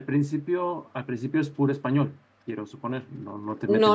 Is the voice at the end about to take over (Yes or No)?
Yes